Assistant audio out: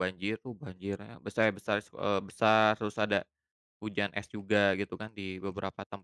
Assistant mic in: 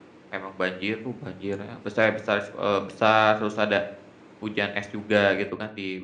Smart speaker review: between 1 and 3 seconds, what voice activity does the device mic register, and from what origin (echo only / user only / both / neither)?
echo only